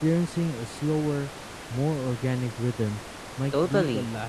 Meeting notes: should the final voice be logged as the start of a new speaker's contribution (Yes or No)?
Yes